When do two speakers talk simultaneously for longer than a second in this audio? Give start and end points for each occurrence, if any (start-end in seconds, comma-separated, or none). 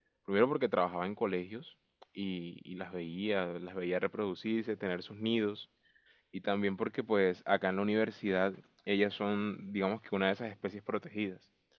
none